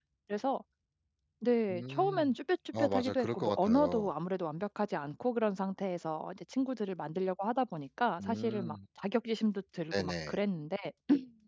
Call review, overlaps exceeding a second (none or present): present